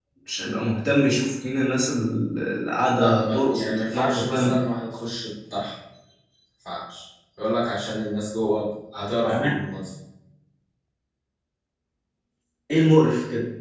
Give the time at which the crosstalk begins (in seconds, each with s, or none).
3.0 s